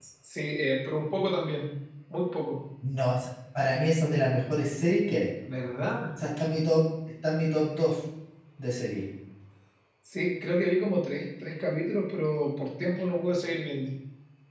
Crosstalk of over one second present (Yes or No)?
No